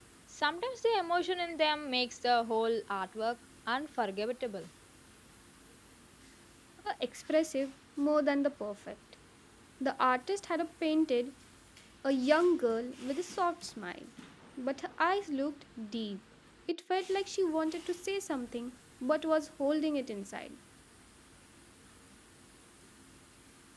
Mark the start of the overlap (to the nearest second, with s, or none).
none